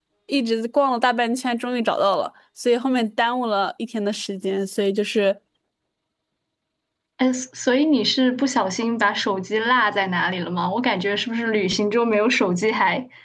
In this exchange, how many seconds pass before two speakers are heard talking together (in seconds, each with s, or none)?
none